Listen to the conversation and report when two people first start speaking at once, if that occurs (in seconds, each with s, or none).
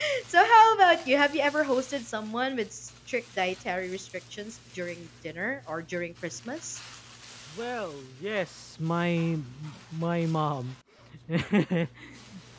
none